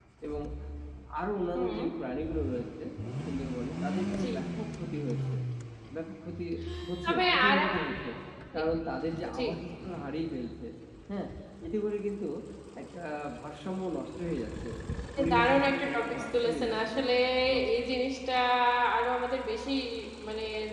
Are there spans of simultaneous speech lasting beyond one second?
Yes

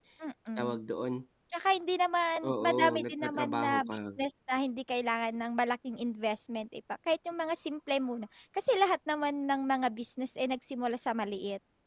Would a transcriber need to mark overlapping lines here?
Yes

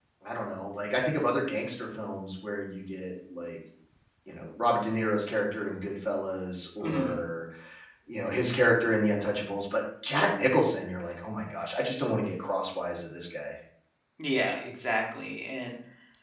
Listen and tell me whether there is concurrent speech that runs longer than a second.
No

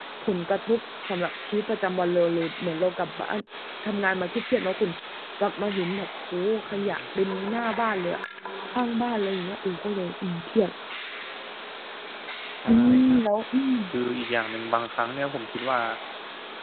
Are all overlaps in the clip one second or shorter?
Yes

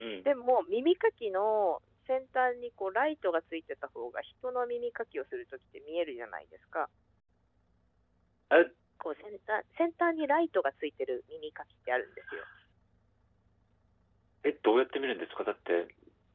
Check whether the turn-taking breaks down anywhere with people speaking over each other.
No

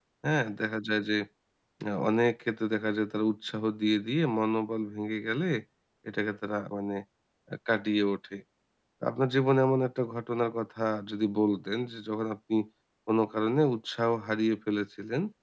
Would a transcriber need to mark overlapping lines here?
No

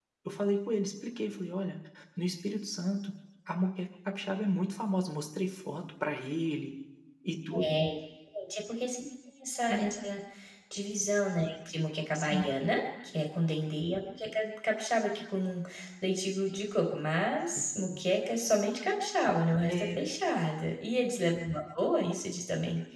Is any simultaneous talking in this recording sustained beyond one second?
No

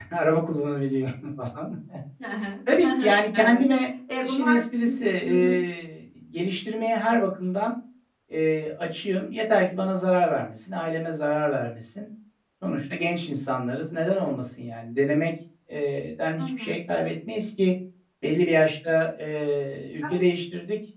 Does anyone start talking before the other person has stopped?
Yes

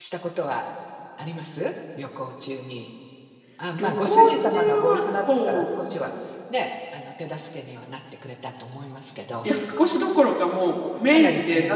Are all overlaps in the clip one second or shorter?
No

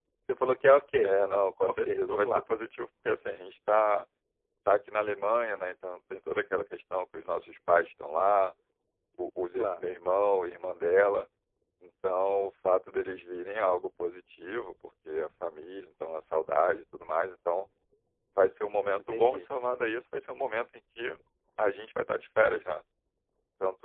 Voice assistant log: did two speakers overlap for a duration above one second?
Yes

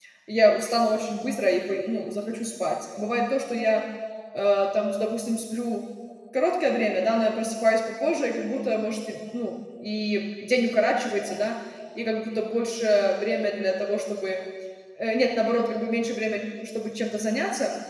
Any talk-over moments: No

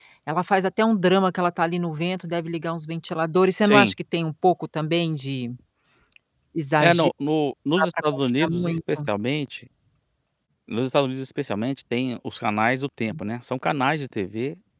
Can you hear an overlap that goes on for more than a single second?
Yes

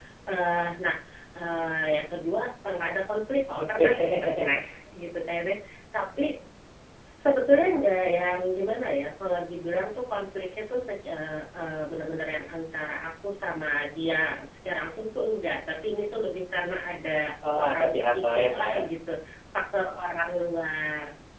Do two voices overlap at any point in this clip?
Yes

